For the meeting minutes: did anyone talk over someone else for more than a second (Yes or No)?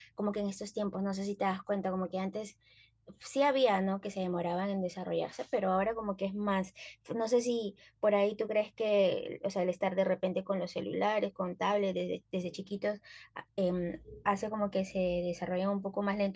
No